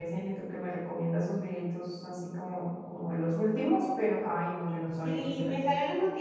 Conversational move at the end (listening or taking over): taking over